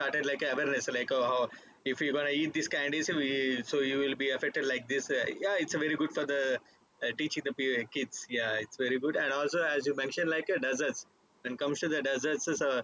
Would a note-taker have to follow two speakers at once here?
No

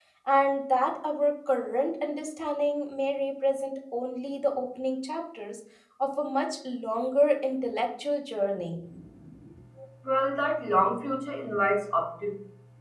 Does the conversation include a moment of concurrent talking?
No

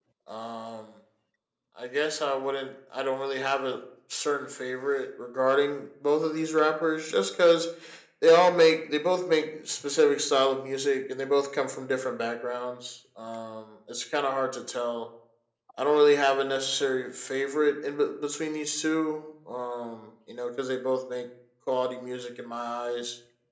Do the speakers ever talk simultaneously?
No

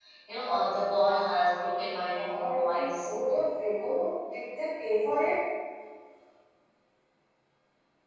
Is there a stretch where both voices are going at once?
Yes, from 1.7 s

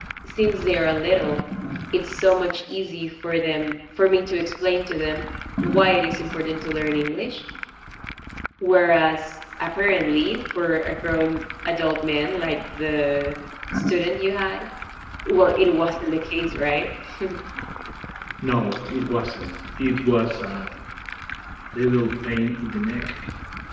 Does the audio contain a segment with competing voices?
No

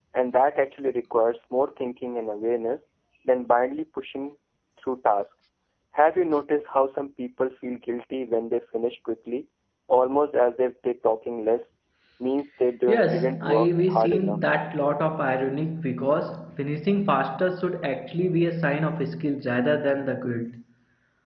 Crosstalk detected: Yes, from 12.9 s

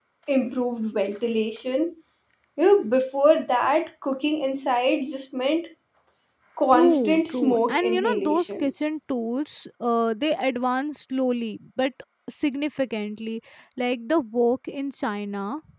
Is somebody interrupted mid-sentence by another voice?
Yes, from 6.7 s

